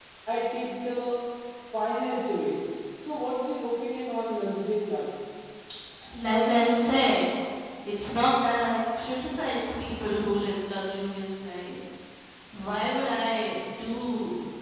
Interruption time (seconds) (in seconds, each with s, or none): none